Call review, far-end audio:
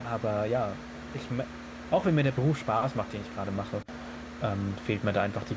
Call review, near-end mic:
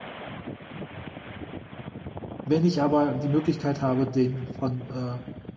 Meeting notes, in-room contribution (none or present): present